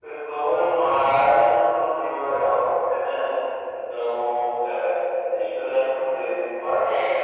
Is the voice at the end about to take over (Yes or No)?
No